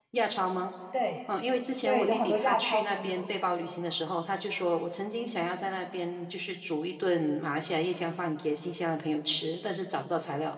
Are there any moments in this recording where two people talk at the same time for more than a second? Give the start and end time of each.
1.9-3.2

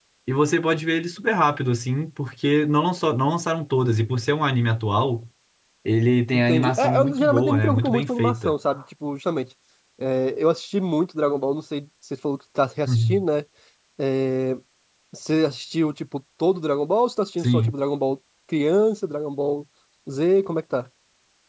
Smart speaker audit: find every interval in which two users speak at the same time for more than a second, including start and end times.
6.3-8.5

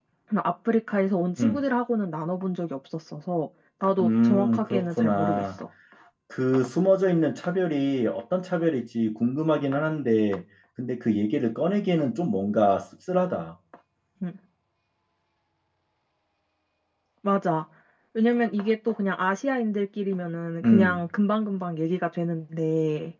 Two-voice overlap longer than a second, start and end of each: 4.0-5.4

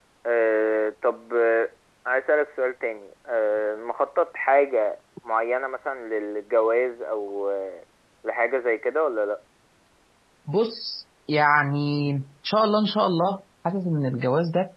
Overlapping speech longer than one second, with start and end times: none

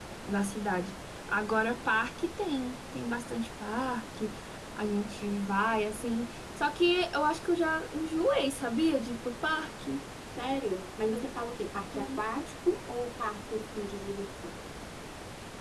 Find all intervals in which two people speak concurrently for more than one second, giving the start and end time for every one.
none

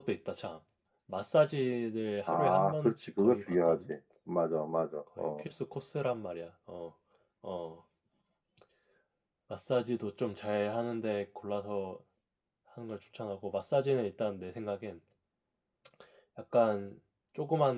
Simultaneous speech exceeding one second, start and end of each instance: 2.3-3.8

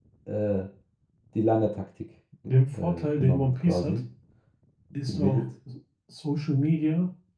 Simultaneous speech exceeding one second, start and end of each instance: 2.7-4.0

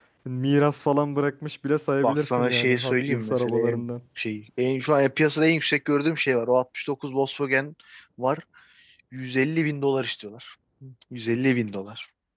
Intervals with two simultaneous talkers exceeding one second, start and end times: 2.0-3.8

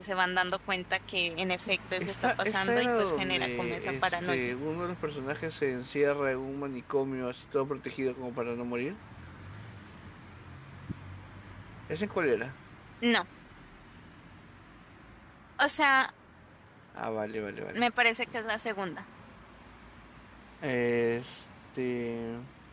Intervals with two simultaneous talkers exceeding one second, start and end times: 2.0-4.4

